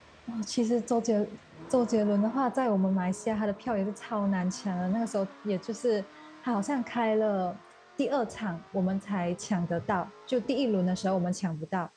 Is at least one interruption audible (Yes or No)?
No